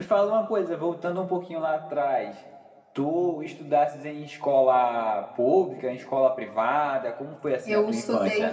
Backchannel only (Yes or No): No